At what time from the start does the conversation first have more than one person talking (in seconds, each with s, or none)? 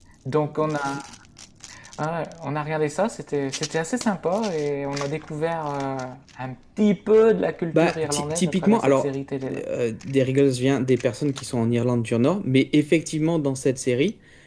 7.7 s